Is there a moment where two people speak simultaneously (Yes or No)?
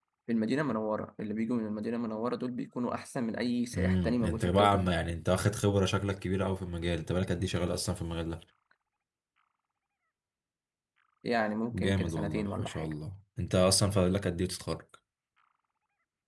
Yes